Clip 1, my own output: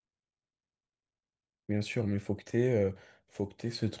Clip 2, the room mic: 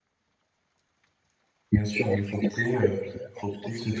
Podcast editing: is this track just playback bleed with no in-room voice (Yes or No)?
Yes